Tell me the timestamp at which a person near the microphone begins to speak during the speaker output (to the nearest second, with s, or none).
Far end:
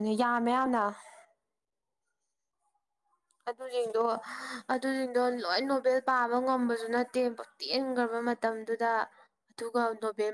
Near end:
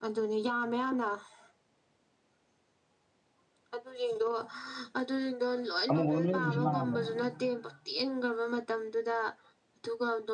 6 s